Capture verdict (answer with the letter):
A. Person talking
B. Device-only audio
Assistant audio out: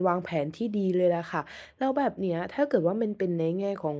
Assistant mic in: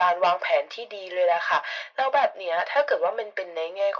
B